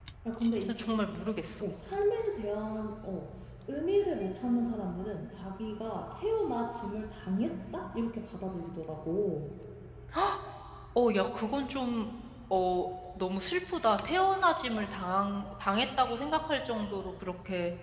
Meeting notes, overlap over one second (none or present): none